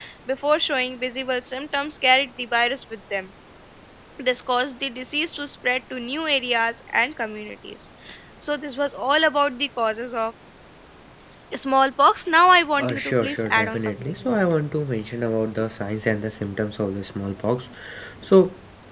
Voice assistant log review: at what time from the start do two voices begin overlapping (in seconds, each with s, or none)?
12.8 s